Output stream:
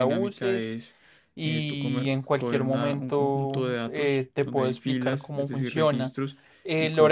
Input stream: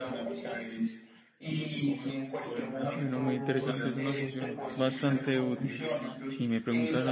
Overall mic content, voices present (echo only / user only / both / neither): both